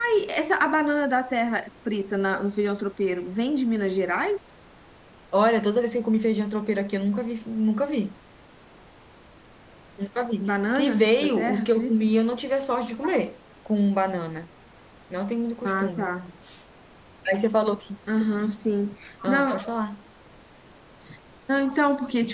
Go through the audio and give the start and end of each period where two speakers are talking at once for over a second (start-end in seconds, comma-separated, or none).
10.4-11.9